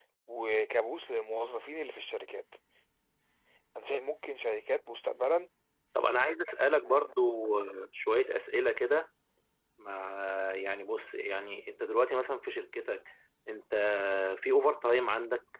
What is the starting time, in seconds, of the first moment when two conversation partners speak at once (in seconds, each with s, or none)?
none